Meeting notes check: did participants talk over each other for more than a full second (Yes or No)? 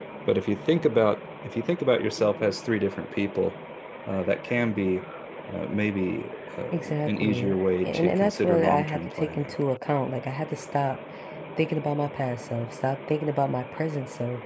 Yes